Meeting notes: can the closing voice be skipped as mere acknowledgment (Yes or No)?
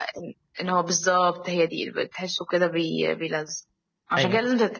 Yes